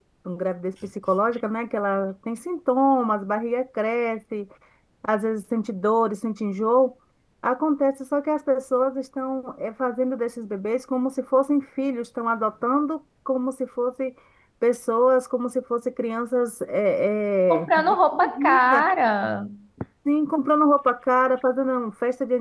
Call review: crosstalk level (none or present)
present